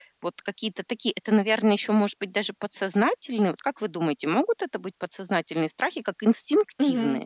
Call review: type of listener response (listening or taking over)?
taking over